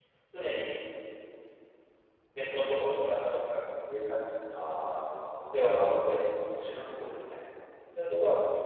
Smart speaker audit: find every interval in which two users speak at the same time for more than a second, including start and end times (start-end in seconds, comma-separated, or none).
none